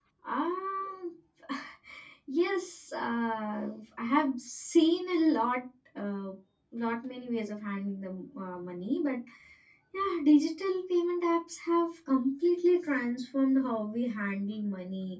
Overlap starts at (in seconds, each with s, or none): none